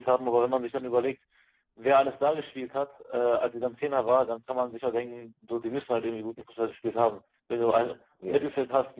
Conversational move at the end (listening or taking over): listening